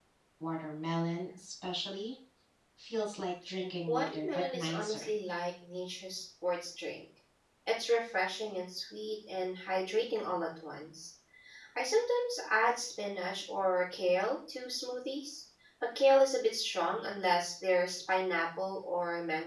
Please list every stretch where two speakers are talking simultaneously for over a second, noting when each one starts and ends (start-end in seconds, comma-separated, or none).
3.9-5.1